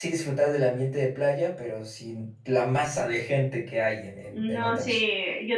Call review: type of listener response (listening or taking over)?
taking over